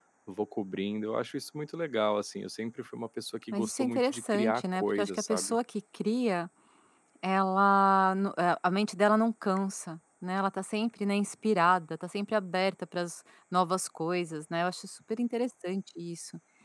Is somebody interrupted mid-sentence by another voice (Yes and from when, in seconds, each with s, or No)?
Yes, from 3.5 s